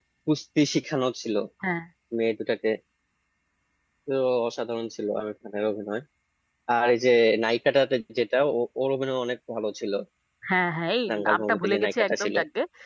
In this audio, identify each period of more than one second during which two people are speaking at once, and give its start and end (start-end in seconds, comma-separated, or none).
11.1-12.3